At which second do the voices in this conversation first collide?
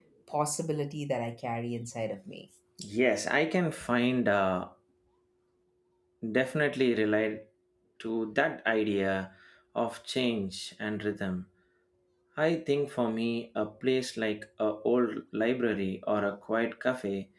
none

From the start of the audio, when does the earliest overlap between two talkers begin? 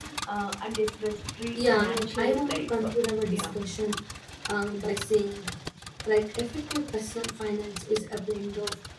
1.6 s

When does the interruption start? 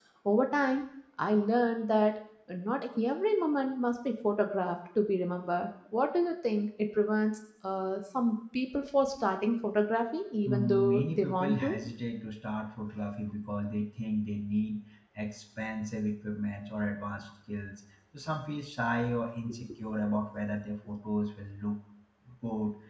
10.4 s

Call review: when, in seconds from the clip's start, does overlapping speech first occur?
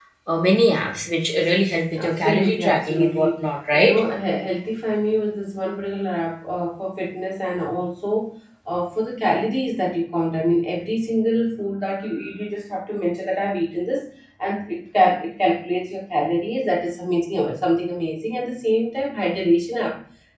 1.9 s

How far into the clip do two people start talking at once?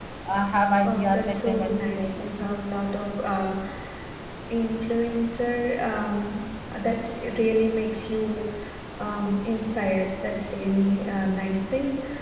0.8 s

